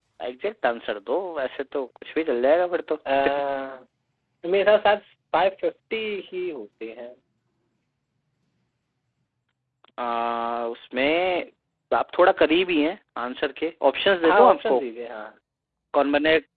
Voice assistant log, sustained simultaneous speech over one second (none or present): none